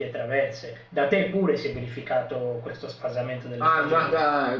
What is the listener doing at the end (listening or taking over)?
taking over